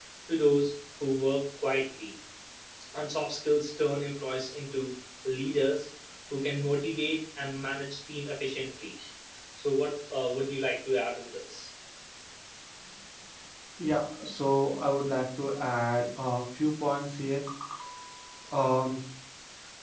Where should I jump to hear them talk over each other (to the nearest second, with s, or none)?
none